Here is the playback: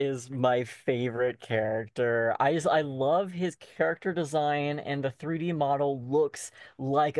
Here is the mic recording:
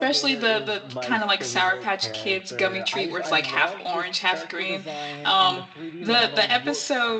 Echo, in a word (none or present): present